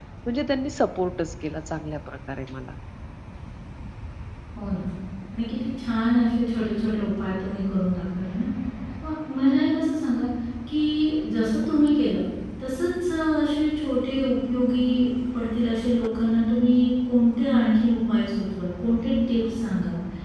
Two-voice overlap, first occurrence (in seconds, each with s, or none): none